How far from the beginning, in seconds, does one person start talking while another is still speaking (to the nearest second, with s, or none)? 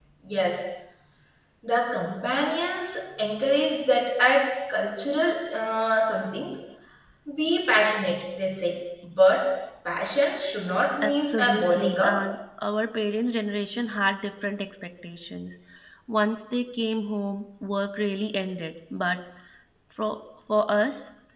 11 s